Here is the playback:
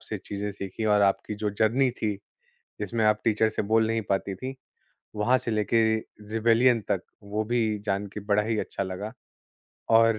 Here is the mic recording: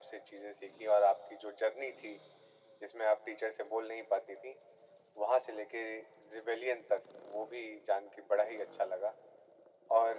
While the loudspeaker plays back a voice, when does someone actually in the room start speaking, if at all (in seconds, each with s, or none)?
none